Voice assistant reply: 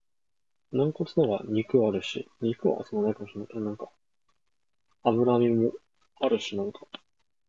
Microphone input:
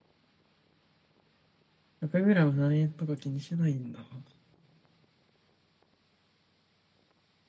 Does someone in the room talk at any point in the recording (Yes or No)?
Yes